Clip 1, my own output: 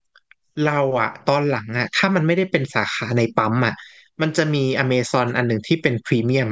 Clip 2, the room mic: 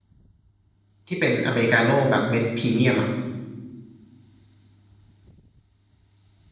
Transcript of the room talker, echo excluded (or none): ที่เป็นอเมริกาโน่แบบเม็ดพรีเมียมอ่ะ